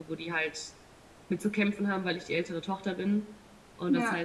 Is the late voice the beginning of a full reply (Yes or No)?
No